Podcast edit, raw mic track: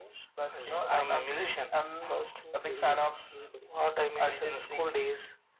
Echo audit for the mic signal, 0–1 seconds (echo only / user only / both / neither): echo only